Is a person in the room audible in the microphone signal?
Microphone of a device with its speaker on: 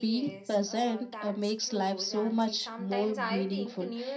Yes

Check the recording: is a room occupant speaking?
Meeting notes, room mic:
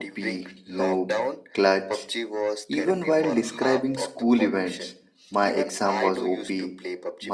Yes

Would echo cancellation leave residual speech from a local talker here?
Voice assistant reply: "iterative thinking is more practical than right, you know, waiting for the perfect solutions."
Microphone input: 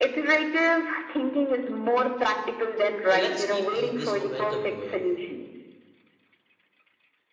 Yes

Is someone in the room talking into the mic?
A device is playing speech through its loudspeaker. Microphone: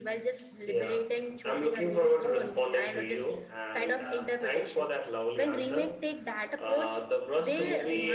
No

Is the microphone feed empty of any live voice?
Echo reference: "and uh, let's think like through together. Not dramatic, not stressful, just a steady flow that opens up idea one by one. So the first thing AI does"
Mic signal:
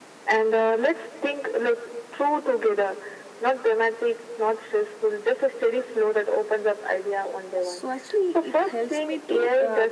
No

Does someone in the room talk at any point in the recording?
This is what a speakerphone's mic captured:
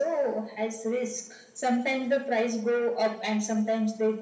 No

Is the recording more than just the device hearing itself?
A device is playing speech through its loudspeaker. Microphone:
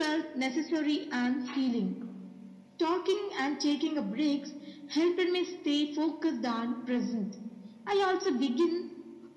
No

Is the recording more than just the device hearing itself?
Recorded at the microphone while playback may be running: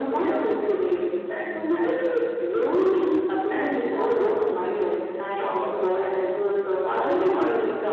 No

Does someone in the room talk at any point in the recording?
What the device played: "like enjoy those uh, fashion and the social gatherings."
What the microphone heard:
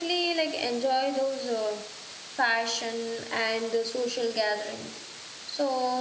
No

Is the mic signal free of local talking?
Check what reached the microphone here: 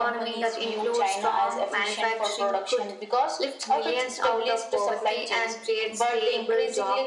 Yes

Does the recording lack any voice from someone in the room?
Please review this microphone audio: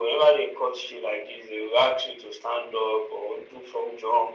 Yes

